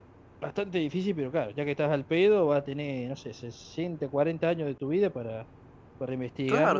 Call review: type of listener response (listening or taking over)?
taking over